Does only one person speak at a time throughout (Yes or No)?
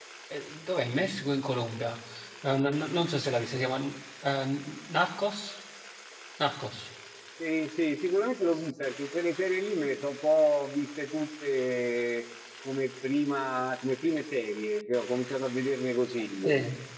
Yes